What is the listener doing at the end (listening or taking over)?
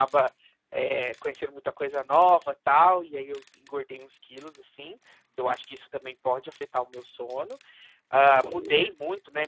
listening